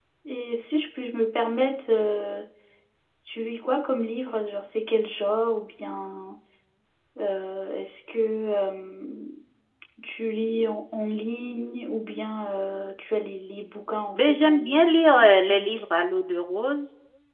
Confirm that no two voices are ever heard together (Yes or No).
No